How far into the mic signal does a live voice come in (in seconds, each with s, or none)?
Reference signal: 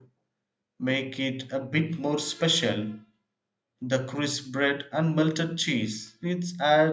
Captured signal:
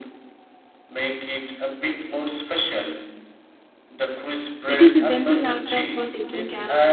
4.7 s